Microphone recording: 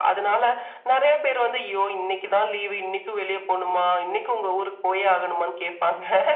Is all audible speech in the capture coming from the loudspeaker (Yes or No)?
Yes